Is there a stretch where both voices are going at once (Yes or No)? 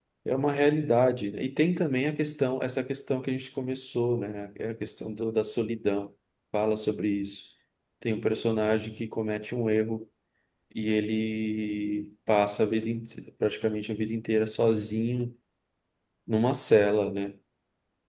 No